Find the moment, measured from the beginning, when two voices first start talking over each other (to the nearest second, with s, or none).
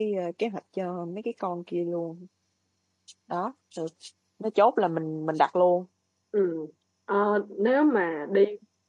none